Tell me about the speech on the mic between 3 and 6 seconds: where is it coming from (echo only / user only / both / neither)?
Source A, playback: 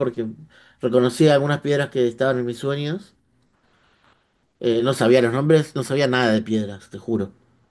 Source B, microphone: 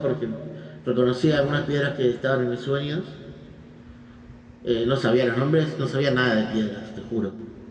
echo only